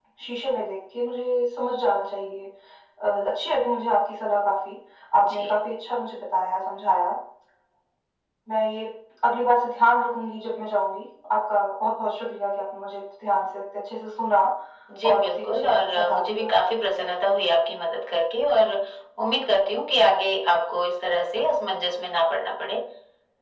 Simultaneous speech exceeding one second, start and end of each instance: 15.1-16.5

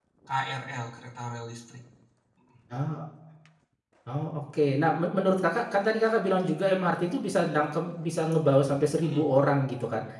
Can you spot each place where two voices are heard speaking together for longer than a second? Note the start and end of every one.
none

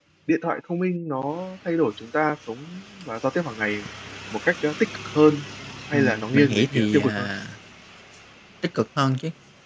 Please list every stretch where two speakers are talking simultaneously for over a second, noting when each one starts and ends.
5.9-7.3

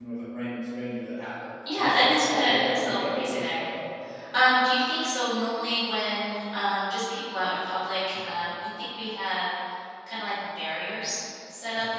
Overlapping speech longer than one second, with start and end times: 1.8-3.6

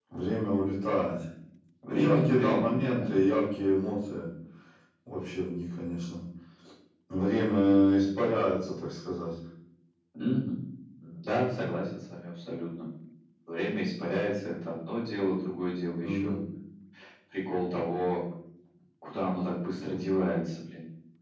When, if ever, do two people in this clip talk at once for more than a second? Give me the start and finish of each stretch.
1.9-3.1

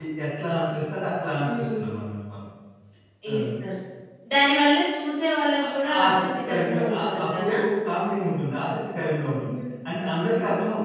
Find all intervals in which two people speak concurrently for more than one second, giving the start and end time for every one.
5.6-7.6

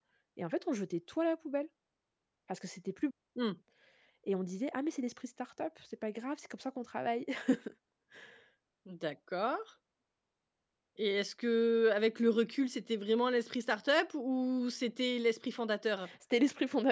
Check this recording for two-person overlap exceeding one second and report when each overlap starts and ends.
none

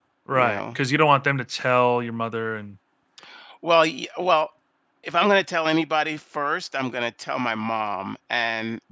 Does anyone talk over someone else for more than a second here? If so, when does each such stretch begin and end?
none

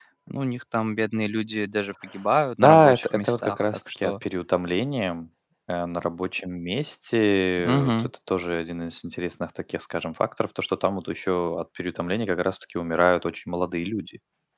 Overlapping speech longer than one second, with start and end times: 2.6-4.1

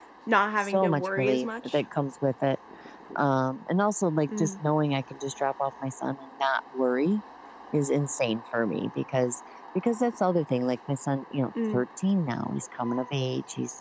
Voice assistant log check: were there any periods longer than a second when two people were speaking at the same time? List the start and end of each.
0.6-1.8

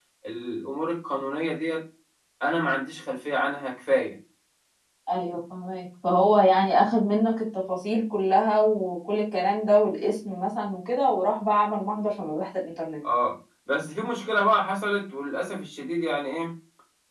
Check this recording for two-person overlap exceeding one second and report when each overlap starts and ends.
none

